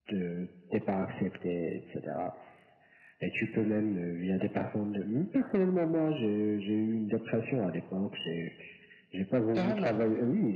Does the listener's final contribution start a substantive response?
No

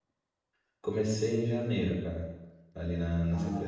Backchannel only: No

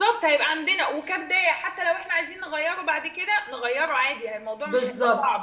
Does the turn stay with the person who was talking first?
No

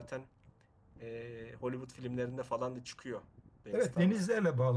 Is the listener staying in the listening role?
No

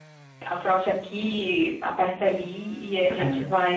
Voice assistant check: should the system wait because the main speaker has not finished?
Yes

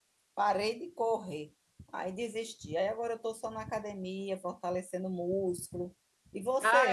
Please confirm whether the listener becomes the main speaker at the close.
Yes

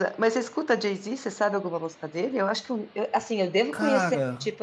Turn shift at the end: No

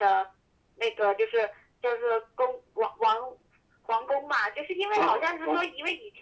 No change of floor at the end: Yes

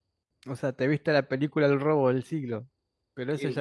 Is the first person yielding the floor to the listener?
Yes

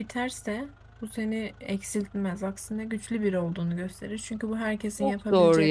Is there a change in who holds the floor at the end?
Yes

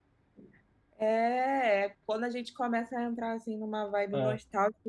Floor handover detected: No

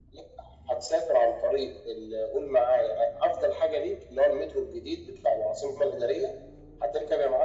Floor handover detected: No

